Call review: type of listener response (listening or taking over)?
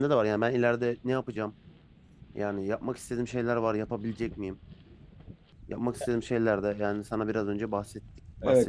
taking over